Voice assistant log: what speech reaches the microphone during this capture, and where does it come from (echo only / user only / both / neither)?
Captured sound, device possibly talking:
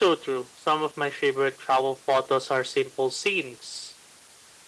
echo only